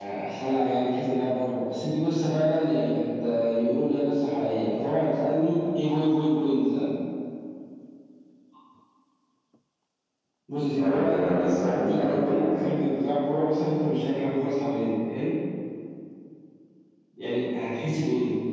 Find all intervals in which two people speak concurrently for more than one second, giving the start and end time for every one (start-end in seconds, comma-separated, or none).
10.8-12.6